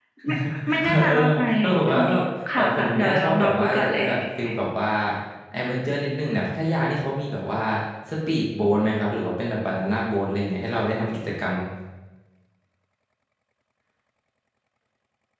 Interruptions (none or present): present